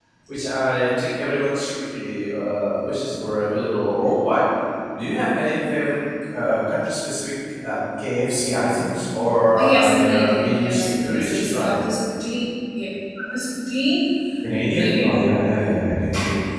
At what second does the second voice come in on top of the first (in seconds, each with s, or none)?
9.6 s